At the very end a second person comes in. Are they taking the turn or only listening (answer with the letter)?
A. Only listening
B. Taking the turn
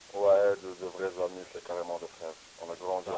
B